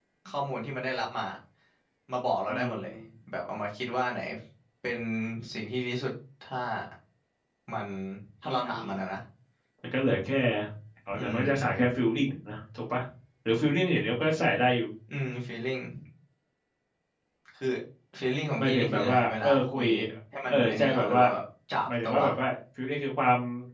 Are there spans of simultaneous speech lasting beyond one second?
Yes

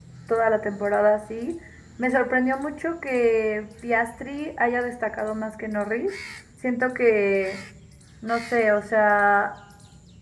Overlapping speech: No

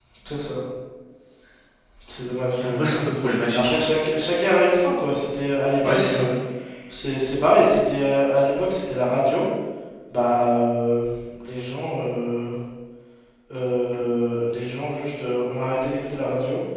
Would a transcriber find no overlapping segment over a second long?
Yes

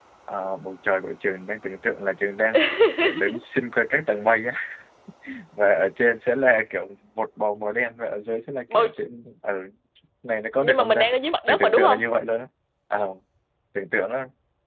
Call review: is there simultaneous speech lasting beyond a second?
No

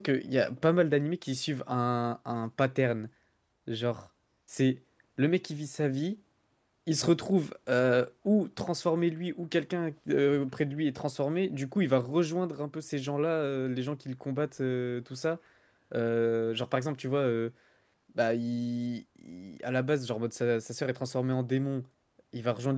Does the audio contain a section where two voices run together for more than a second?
No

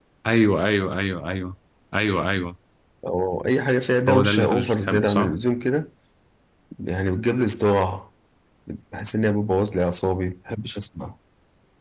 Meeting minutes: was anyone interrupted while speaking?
Yes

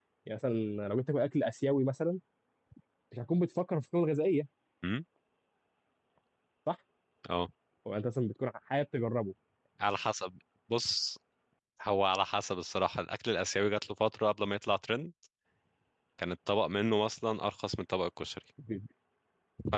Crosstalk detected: No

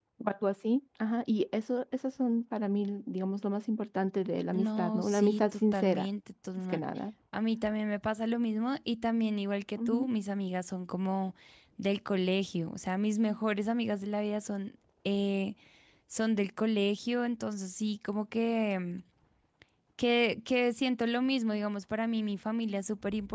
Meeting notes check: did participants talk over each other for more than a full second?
Yes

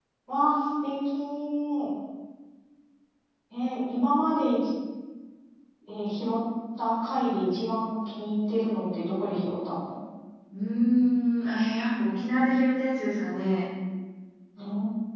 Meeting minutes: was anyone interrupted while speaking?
No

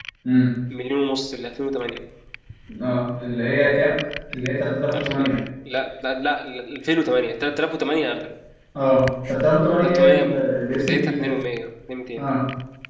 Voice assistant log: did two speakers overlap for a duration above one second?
Yes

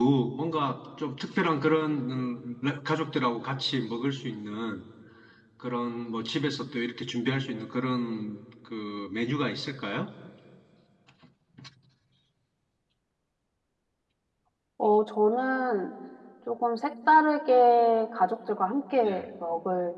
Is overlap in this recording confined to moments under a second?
Yes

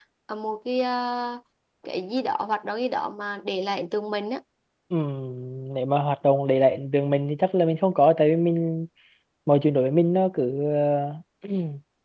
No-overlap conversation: Yes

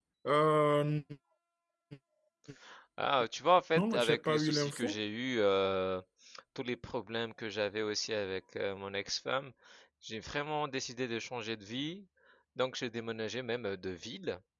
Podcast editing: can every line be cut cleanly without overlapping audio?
No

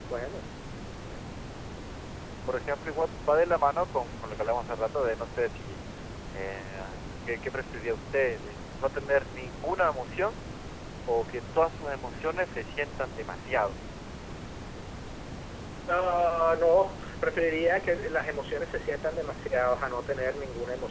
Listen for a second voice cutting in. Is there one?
No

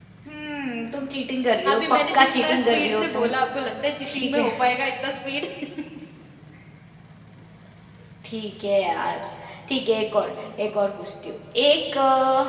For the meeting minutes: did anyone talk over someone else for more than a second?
Yes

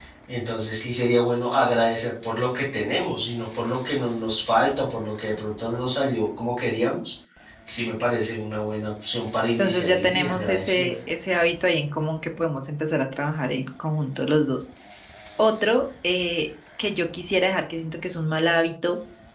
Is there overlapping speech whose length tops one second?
Yes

